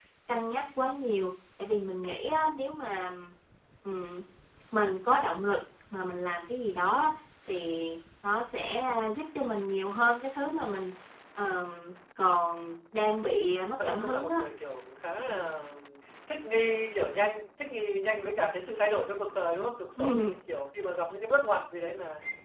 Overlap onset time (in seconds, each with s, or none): 13.2 s